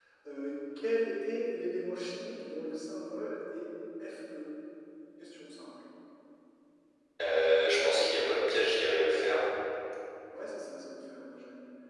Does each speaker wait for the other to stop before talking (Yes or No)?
Yes